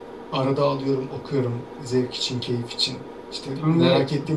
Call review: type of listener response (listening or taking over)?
listening